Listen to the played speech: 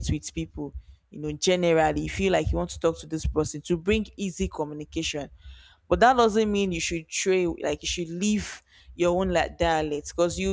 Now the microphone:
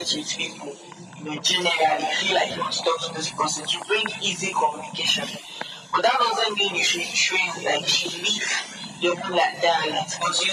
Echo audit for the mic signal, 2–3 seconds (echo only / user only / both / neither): echo only